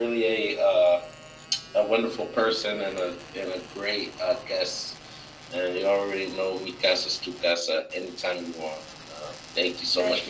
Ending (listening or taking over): taking over